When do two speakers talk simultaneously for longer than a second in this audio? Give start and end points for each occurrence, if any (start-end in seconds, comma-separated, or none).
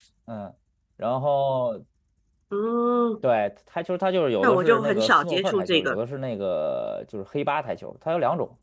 4.4-6.0